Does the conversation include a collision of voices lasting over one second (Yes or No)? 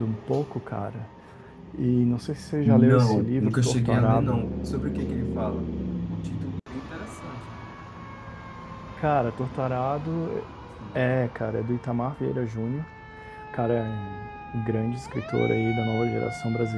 Yes